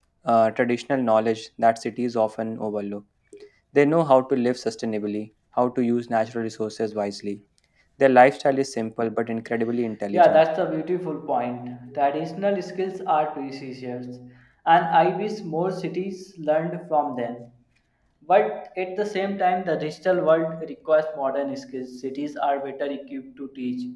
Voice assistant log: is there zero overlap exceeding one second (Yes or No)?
Yes